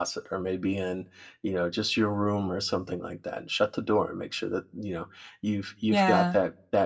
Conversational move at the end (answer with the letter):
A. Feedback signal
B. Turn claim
A